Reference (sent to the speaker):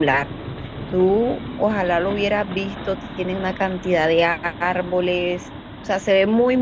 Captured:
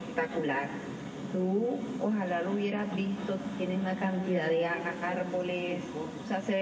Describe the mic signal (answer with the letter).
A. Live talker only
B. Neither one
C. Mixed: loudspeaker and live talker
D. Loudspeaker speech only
C